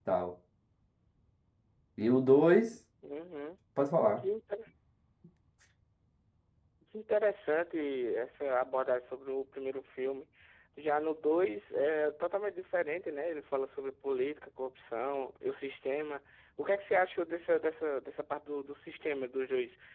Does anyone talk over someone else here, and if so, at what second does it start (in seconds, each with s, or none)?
none